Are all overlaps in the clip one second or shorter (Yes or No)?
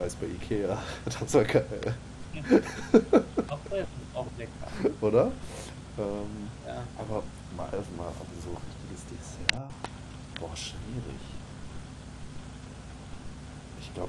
Yes